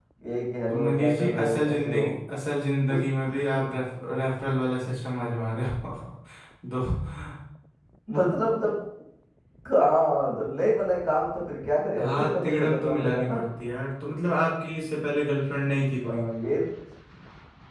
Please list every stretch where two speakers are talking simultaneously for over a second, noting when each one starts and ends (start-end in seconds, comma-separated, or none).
0.7-2.0, 12.0-13.4